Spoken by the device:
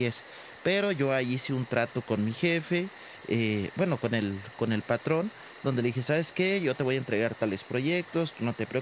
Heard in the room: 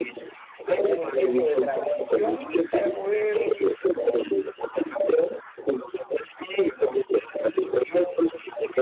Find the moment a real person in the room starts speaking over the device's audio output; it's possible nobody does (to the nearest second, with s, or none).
1 s